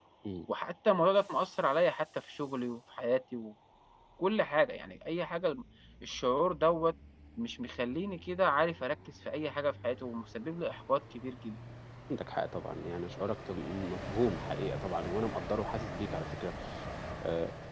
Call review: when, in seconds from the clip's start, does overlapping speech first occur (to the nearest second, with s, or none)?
none